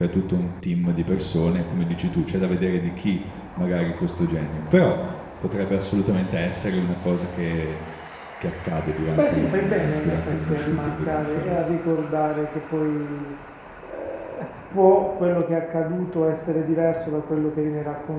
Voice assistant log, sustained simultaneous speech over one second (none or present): present